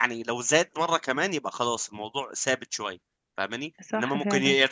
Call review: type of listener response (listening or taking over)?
listening